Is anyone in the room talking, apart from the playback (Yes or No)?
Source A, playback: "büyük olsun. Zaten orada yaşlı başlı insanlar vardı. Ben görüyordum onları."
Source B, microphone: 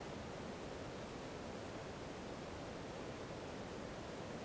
No